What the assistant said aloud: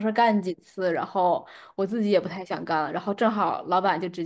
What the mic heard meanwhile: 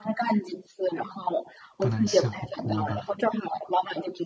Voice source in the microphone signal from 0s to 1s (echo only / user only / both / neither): echo only